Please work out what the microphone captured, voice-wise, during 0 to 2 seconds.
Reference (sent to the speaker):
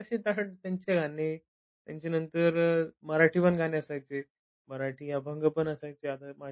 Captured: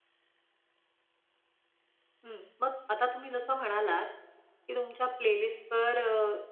neither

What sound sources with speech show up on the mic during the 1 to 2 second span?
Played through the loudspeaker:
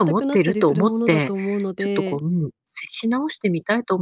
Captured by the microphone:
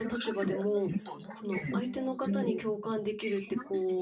both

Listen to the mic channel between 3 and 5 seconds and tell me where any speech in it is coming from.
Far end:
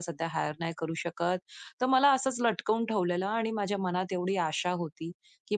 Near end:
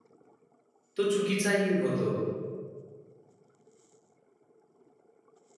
neither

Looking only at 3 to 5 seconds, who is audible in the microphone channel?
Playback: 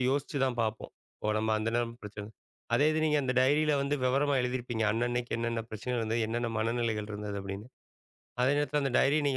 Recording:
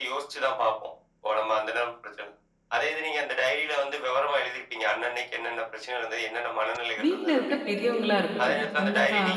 echo only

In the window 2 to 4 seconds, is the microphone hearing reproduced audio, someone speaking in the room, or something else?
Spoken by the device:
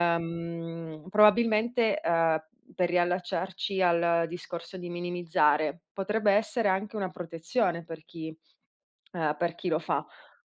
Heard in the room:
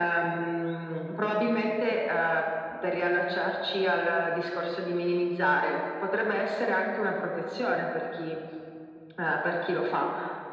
echo only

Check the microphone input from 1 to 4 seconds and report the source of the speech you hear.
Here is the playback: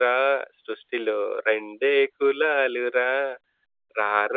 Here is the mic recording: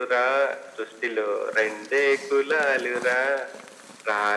echo only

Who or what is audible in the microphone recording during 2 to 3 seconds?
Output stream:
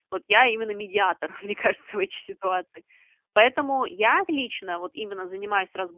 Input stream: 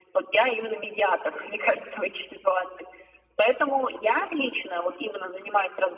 echo only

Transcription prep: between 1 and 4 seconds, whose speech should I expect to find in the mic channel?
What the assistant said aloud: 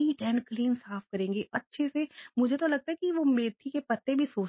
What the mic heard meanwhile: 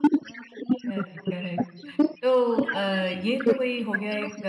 both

